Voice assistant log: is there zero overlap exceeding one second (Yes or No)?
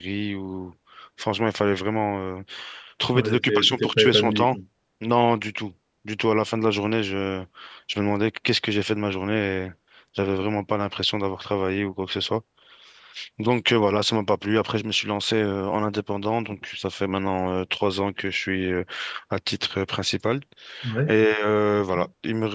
No